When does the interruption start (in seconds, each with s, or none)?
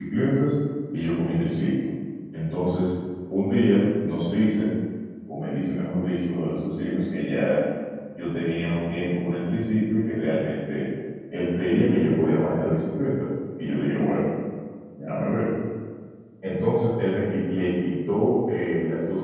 none